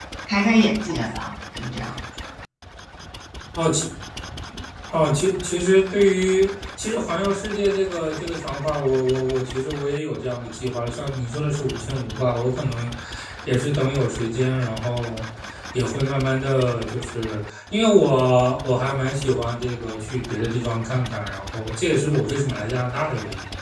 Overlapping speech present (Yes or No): No